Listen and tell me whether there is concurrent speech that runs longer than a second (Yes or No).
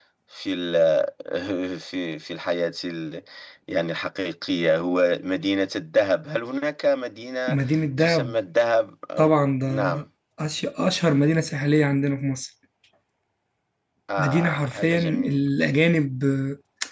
Yes